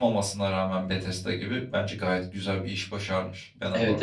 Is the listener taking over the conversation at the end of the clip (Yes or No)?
Yes